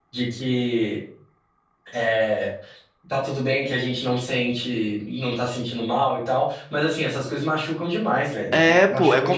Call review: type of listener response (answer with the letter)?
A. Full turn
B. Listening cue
A